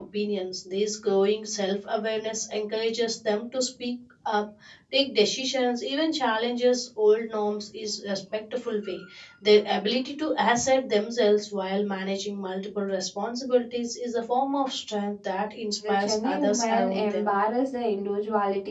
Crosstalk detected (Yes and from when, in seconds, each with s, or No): Yes, from 15.8 s